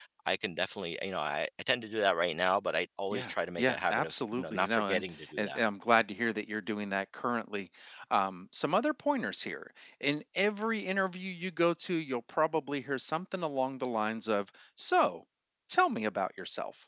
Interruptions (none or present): present